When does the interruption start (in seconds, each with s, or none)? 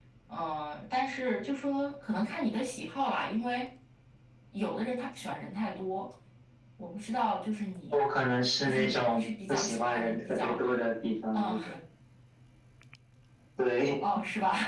8.6 s